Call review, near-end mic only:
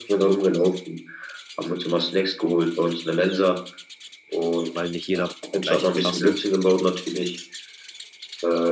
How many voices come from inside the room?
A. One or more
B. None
A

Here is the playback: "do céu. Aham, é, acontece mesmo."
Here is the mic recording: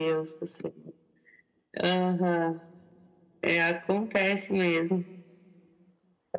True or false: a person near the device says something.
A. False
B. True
A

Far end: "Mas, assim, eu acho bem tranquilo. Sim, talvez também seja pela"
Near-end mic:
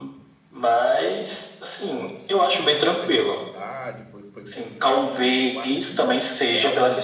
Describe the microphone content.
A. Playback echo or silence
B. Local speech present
B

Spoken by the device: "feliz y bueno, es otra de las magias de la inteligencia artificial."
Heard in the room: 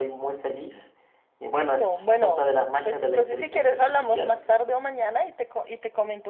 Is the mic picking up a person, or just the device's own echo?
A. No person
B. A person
B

